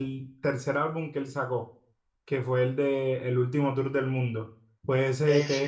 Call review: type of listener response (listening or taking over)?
listening